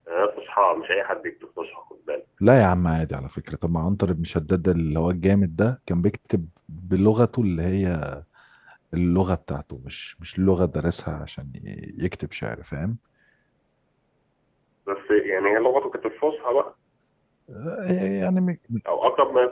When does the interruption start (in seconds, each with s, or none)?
none